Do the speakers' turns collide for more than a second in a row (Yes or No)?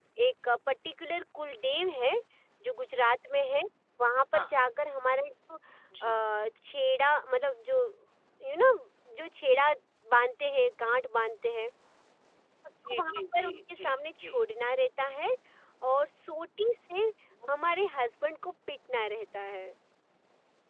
Yes